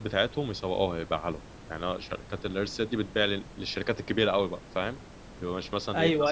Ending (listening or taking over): taking over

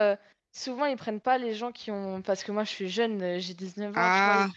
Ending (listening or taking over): listening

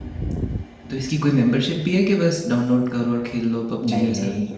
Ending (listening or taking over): taking over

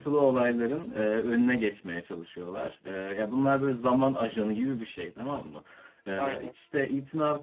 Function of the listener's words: listening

